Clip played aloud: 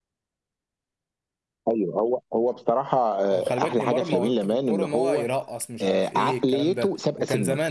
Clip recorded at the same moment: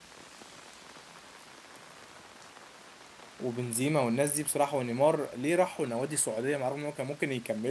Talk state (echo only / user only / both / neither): user only